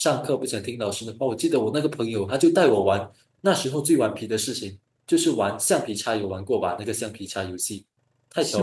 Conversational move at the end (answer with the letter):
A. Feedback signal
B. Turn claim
B